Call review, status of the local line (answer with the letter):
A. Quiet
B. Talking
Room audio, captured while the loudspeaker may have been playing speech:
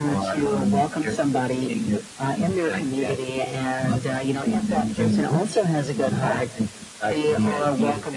A